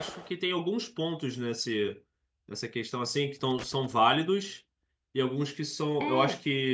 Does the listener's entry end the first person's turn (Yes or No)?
No